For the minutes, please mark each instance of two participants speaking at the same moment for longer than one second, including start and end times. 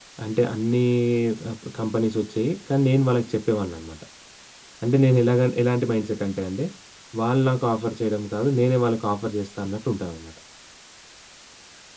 none

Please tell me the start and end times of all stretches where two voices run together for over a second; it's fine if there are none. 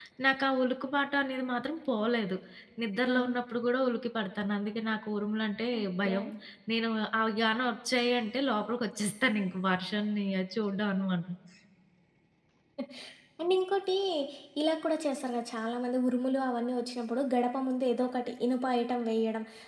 none

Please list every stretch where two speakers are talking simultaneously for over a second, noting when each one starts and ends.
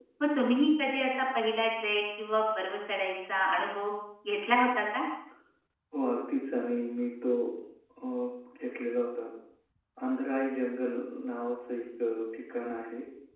none

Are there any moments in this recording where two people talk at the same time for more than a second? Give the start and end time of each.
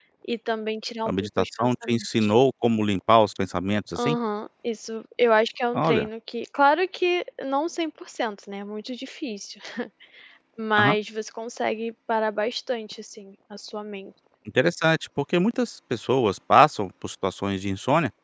1.1-2.3

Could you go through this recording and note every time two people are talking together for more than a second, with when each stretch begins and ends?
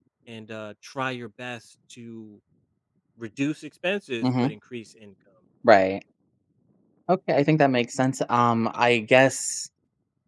none

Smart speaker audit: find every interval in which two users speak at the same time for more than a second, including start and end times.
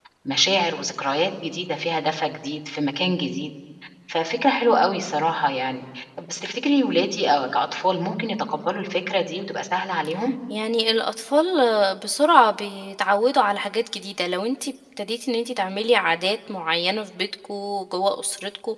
none

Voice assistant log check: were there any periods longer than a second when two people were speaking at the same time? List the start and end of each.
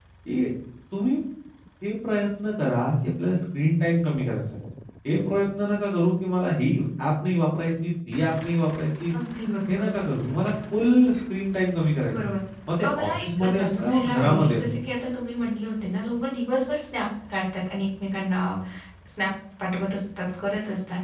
12.8-14.6

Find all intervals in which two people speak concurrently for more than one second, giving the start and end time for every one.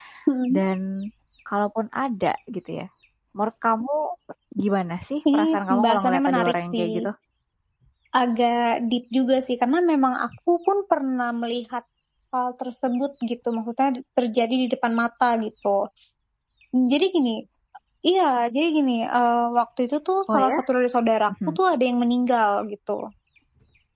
5.3-6.9

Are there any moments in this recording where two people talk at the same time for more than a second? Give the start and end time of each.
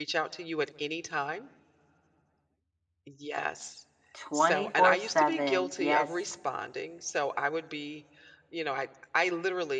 4.3-6.1

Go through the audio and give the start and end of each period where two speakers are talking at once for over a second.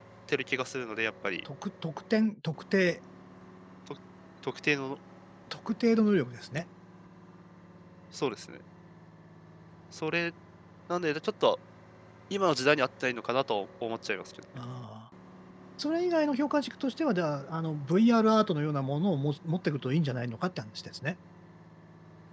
none

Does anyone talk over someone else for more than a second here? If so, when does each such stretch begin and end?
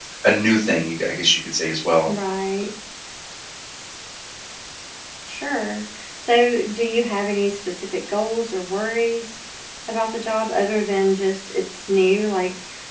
none

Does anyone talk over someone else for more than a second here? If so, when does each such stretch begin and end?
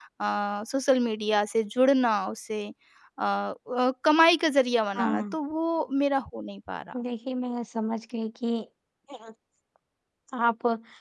none

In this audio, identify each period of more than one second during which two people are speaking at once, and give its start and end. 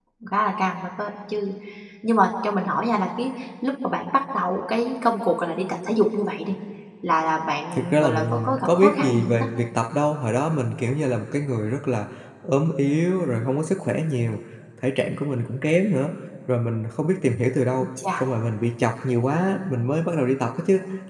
7.8-9.5

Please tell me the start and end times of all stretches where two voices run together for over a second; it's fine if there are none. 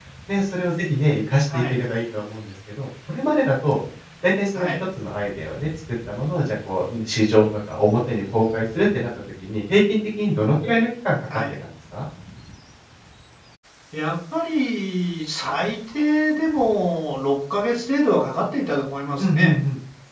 none

